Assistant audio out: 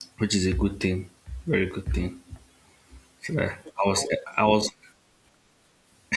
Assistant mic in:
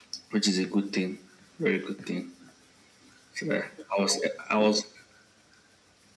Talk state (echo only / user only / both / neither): echo only